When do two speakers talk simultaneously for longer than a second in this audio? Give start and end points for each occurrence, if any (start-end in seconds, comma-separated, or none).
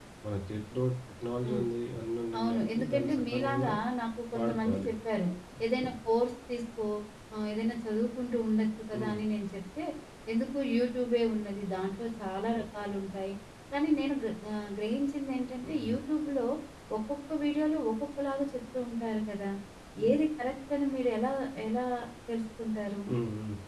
2.4-3.7